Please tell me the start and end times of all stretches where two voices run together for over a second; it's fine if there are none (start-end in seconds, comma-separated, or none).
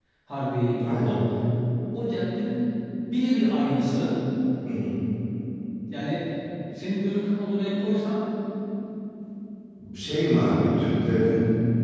none